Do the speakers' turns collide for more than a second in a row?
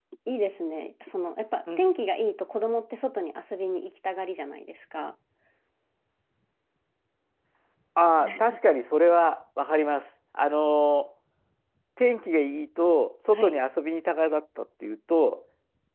No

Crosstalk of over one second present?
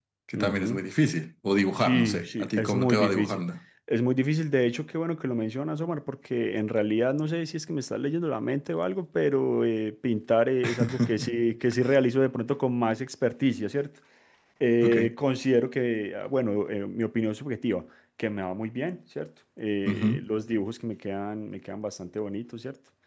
Yes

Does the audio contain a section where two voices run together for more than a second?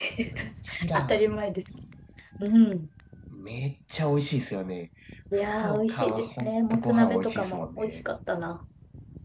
Yes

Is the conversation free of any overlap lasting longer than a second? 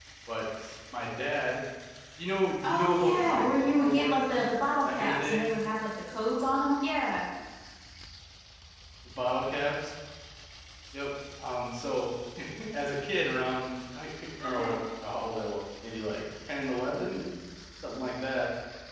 No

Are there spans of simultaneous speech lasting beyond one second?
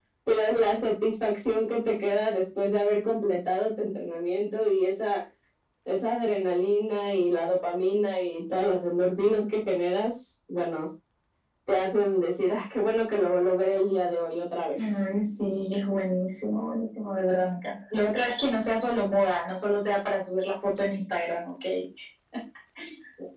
No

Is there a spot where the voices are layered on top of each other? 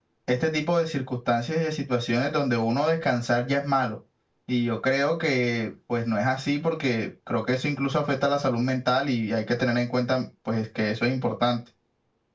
No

